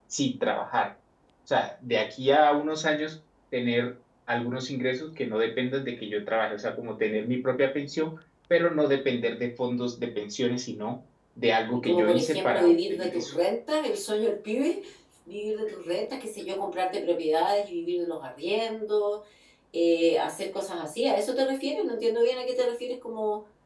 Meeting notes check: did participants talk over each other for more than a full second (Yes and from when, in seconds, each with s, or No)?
Yes, from 11.7 s